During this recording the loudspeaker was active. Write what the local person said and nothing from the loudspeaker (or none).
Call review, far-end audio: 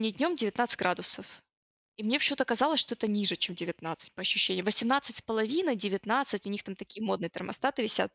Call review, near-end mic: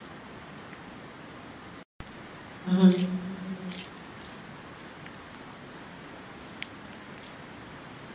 Мгм.